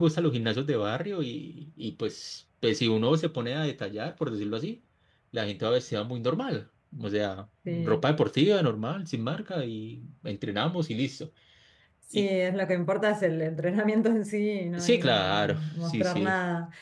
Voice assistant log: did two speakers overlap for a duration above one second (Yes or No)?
Yes